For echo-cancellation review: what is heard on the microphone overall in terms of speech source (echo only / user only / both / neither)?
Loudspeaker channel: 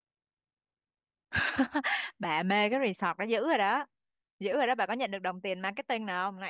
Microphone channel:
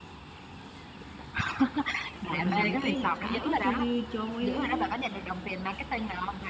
both